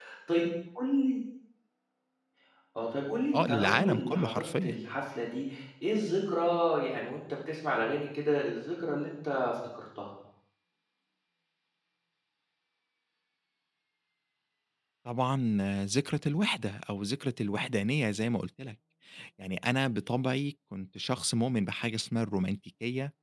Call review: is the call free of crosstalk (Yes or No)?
No